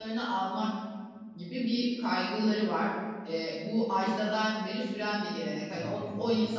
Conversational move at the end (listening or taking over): listening